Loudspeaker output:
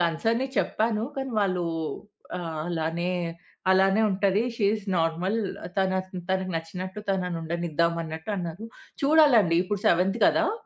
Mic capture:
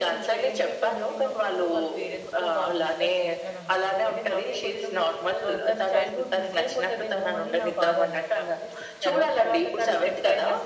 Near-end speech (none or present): present